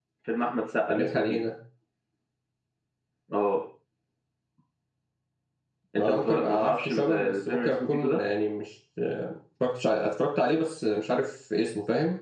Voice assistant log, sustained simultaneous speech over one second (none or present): present